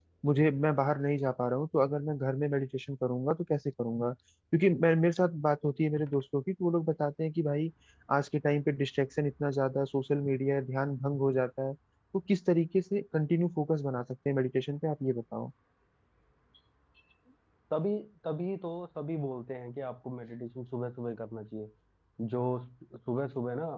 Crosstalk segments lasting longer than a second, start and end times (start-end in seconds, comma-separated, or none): none